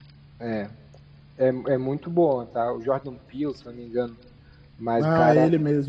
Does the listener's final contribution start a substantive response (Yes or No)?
Yes